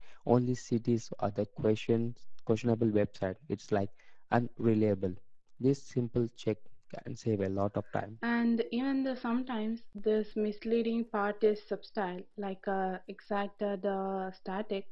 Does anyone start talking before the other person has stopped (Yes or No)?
No